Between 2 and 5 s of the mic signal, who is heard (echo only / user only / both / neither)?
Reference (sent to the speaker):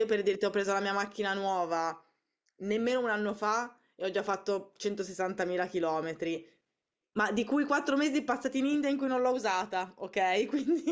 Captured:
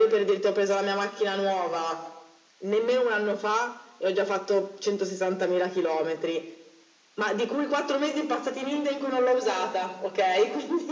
echo only